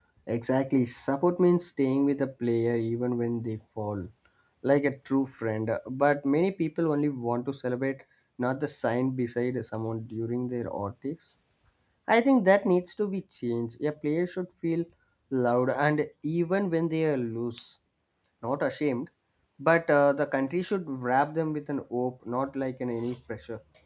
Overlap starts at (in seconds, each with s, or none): none